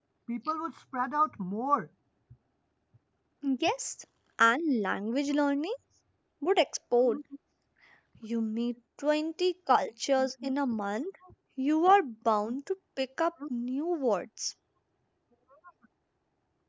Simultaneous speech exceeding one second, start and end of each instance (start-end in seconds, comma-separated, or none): none